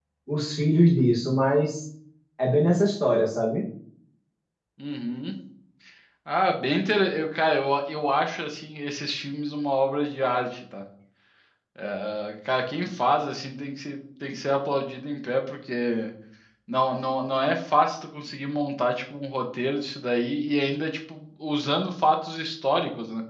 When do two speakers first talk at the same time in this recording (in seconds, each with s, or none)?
none